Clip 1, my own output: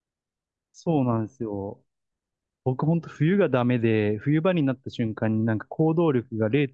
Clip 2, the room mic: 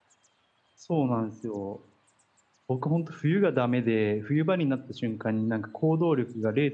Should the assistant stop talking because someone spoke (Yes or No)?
No